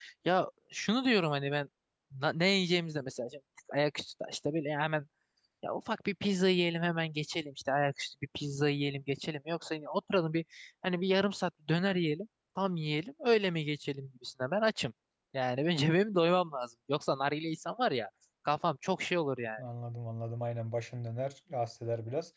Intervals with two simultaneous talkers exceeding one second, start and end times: none

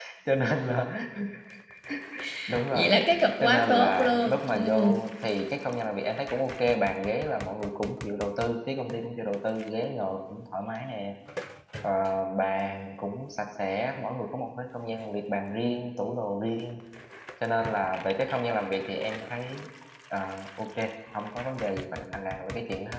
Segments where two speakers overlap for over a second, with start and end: 3.4-4.9

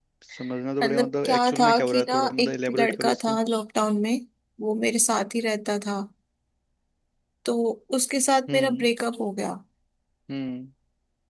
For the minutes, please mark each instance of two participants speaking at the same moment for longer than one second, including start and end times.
0.8-3.4

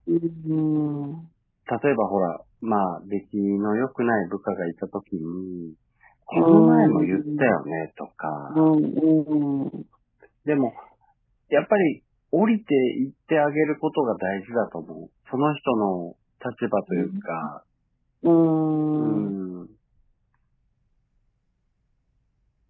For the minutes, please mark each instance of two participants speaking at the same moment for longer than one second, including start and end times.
6.3-7.6

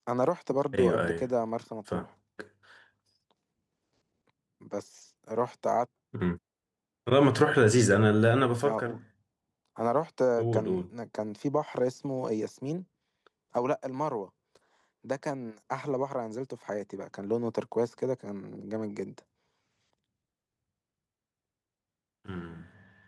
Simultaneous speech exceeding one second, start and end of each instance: none

